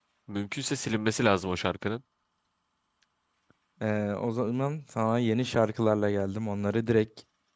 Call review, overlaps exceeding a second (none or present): none